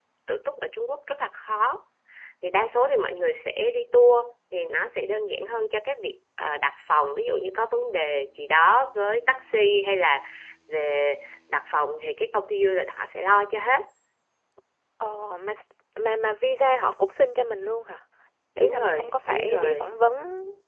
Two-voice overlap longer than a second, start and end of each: 18.6-19.9

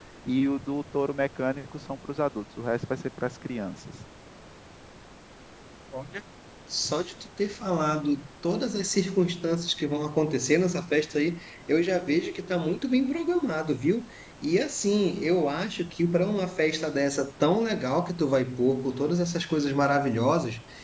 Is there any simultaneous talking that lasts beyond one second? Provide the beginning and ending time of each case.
none

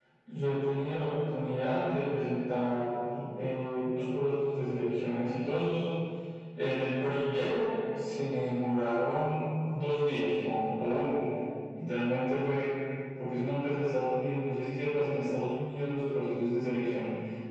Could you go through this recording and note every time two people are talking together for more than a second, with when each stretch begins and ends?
none

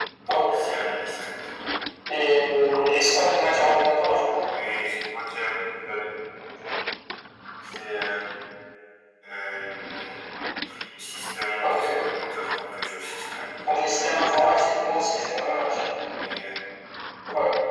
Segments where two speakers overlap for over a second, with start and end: none

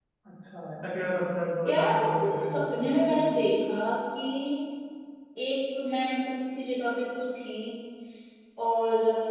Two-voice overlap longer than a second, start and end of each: 1.7-3.2

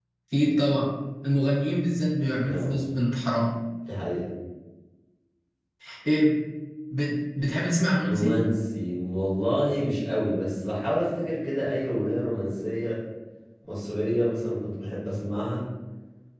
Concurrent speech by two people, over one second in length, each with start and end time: none

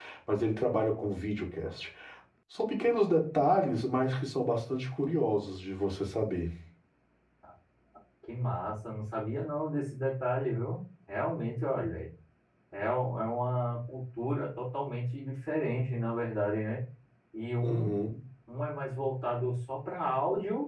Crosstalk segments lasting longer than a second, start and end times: none

